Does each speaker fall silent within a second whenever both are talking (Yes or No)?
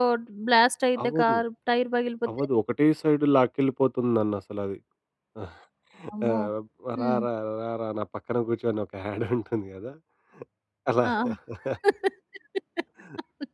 Yes